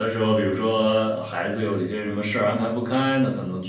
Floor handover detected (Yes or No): No